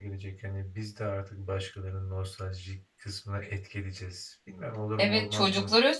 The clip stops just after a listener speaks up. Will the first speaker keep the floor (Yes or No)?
No